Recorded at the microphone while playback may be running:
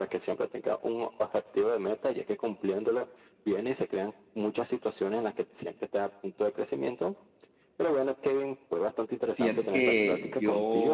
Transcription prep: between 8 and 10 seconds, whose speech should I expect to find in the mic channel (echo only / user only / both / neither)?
both